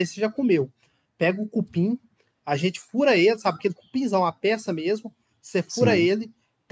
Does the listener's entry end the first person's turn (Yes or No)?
No